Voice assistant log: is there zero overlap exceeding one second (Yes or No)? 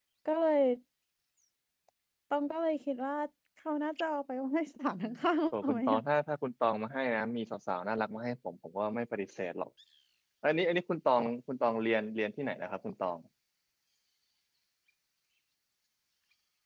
Yes